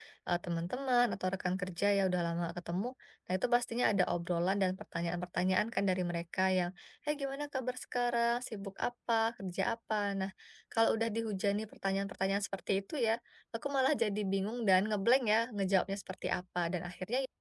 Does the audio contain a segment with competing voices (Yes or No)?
No